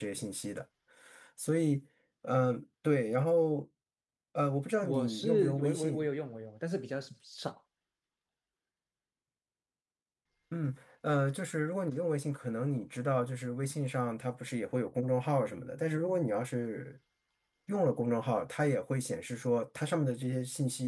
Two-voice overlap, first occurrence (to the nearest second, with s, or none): 5 s